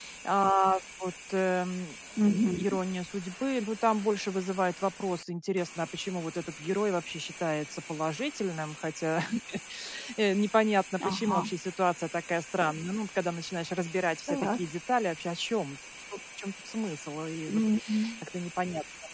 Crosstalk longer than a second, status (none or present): none